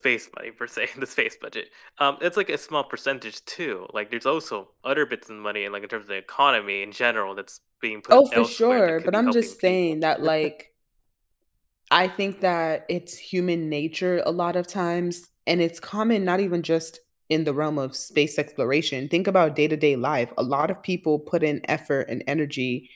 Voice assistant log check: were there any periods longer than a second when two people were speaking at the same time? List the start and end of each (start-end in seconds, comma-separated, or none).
8.1-9.9